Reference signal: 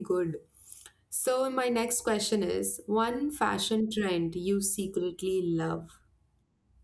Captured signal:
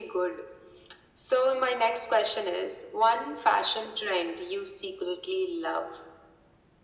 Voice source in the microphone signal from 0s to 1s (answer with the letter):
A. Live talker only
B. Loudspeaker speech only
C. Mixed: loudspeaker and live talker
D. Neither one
B